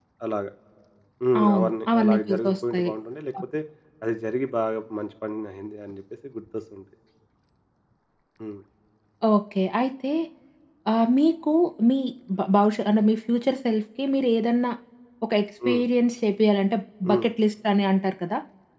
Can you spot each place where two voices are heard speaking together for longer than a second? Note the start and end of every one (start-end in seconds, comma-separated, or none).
1.4-2.9